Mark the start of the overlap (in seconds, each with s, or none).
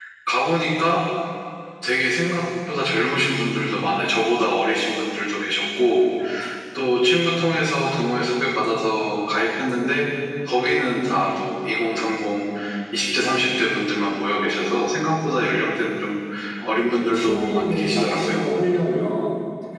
16.6 s